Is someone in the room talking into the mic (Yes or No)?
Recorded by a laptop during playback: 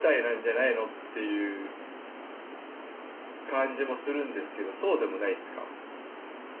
Yes